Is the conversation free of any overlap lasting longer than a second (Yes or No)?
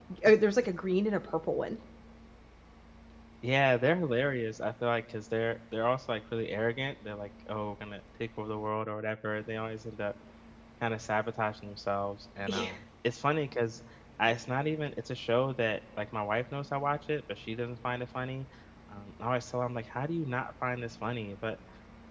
Yes